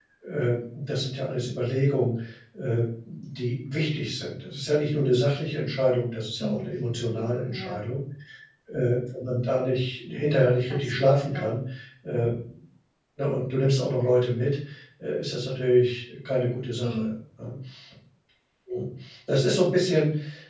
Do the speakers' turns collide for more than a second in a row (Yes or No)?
Yes